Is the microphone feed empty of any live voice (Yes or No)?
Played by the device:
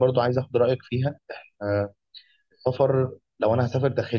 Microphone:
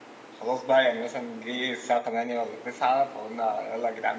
No